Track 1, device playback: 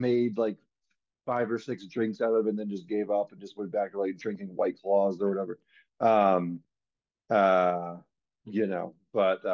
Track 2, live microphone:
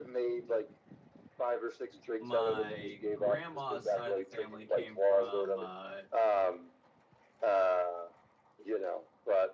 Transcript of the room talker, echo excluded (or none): my grandma's side of the family came from uh,